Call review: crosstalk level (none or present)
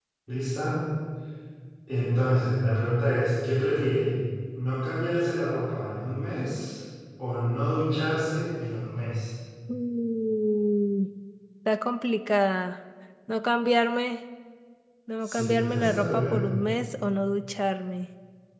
present